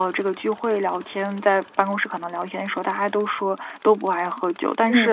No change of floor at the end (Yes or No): Yes